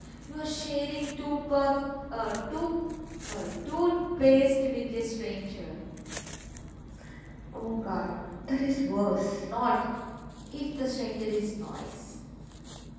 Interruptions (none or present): none